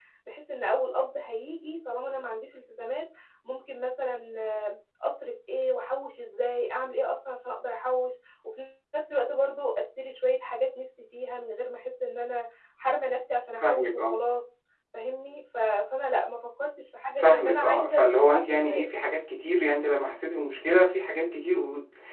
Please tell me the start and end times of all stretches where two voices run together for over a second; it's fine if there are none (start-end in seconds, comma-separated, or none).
17.2-18.9